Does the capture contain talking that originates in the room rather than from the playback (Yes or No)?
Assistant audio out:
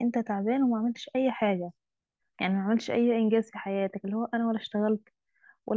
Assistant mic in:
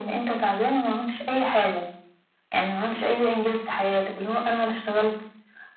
No